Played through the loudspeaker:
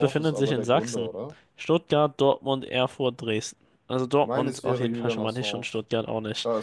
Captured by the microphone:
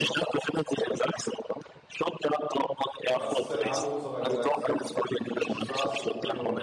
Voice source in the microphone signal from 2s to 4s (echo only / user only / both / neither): both